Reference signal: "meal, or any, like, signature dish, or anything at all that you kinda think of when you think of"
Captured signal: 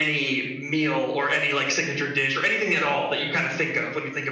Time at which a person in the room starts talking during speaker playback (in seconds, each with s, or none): none